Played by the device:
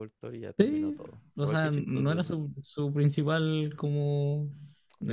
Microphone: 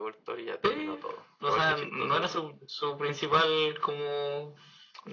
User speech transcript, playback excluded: none

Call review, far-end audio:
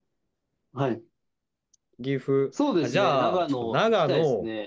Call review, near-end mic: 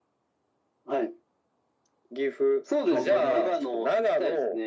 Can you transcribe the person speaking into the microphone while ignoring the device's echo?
郷土料理。

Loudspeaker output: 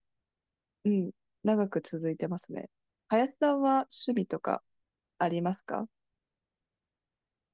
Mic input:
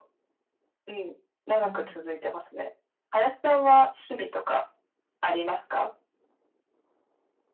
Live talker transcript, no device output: あれ

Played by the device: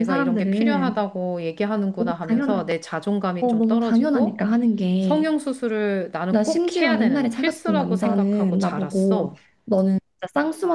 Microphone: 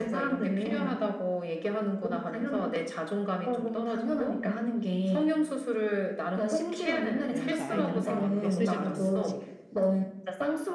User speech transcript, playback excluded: 이러면서 아이들한테 많은 메시지를 던졌지.

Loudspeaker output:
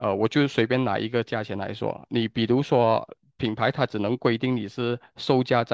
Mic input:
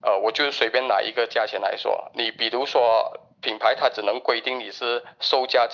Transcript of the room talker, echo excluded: none

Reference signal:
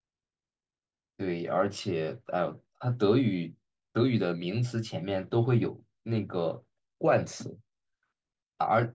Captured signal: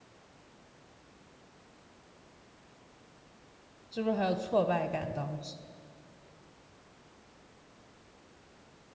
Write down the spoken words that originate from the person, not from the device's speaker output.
是不是很有挫败感？当时，

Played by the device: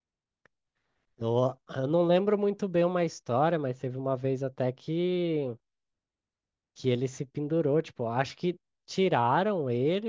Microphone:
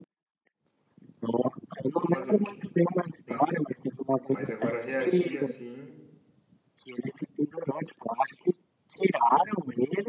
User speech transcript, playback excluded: Vou fazer o quê? Né? Mas agora reagir assim.

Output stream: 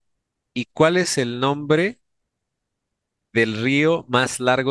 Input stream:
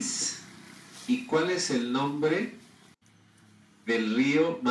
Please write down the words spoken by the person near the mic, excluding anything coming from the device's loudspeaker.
none

